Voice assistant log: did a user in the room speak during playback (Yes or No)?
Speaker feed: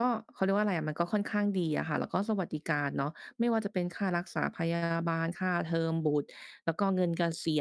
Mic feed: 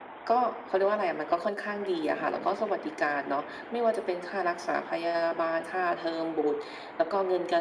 No